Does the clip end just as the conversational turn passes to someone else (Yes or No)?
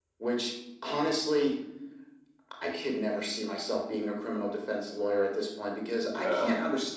No